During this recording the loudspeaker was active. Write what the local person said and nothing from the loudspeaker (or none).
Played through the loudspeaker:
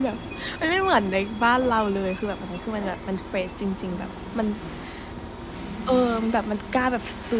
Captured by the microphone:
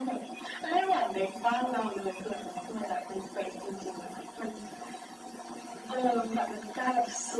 none